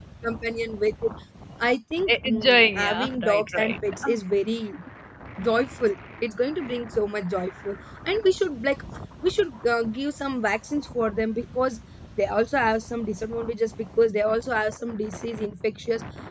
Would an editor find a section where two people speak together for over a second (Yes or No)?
Yes